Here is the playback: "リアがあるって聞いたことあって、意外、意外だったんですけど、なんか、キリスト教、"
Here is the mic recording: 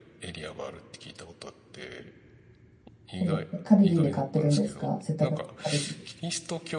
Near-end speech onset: 3 s

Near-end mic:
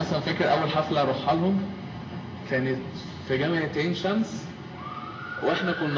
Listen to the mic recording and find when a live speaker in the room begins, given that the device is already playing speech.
none

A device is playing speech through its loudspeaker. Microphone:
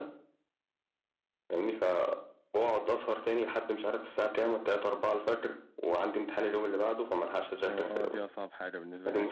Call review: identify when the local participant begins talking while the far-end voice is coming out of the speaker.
8 s

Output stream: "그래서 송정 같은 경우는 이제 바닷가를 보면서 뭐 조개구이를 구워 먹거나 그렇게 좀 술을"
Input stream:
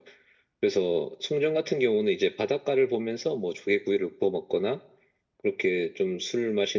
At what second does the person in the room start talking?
none

